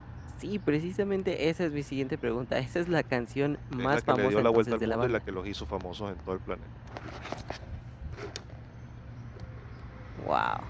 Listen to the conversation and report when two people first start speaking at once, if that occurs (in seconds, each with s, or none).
3.8 s